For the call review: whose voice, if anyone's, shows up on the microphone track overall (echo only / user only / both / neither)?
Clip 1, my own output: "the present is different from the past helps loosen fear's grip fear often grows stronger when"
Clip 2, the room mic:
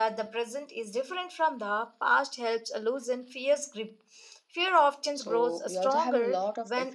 both